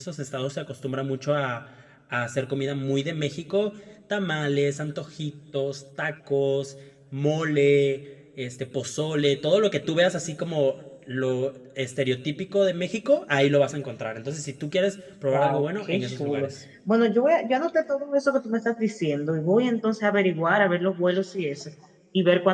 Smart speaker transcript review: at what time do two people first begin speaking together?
15.3 s

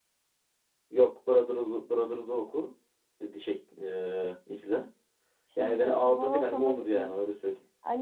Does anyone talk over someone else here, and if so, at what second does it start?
5.6 s

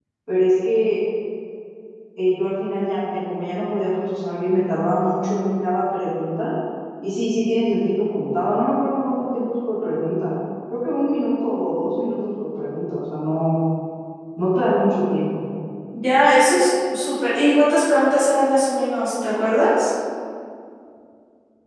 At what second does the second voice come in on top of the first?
none

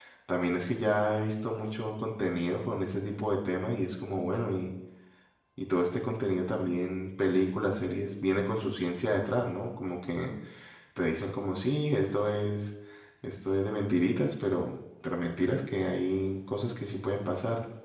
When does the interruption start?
none

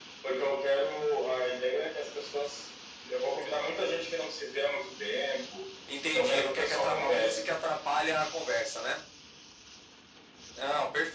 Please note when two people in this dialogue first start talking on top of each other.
5.9 s

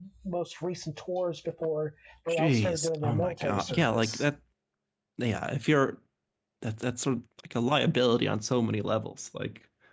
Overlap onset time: 2.3 s

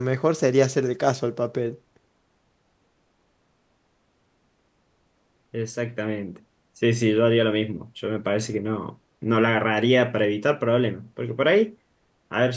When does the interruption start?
none

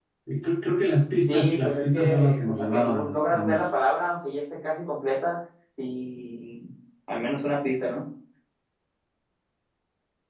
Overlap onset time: 1.3 s

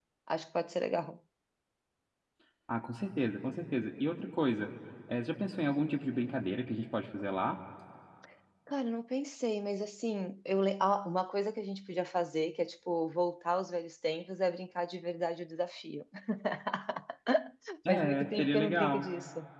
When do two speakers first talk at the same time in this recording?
17.9 s

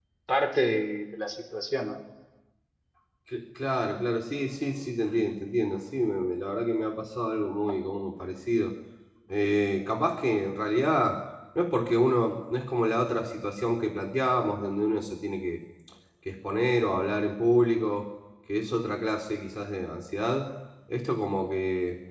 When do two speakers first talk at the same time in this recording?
none

